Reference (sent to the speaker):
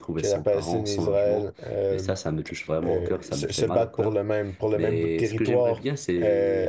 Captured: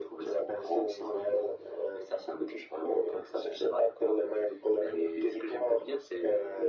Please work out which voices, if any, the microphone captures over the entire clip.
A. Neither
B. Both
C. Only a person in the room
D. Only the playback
D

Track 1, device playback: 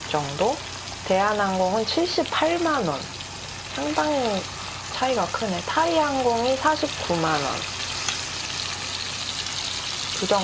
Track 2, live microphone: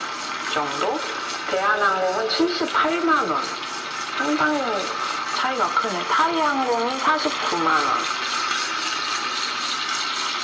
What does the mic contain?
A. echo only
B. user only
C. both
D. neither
A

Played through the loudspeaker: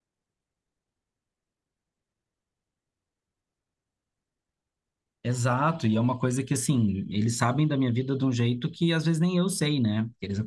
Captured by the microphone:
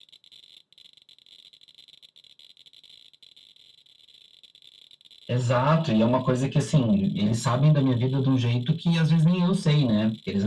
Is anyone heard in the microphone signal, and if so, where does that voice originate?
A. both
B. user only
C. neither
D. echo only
D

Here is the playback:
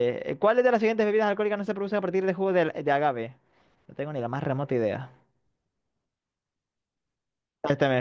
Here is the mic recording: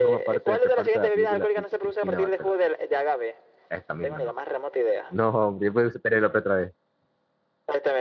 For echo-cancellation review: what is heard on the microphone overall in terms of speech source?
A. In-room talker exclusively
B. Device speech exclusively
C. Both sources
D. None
C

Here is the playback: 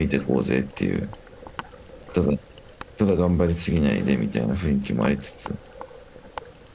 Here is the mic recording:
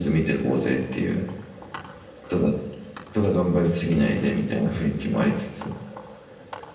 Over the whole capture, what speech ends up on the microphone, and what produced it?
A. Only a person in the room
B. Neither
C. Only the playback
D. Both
C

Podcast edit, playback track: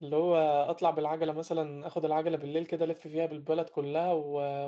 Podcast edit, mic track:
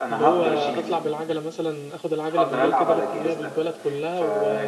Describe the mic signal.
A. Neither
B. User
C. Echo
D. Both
D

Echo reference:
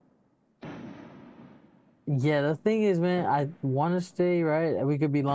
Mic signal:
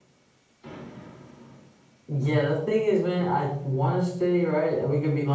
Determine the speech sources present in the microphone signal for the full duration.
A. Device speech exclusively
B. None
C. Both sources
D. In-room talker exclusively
A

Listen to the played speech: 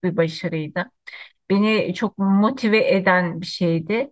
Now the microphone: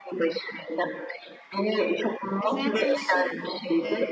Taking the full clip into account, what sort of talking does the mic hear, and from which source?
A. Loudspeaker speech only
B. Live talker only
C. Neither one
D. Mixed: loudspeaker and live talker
D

